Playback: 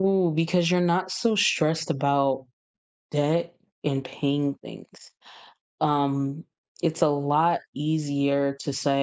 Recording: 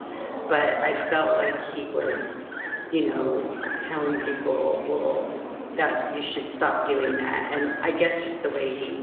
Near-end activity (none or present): present